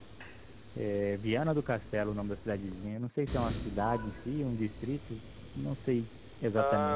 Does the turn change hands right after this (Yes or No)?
Yes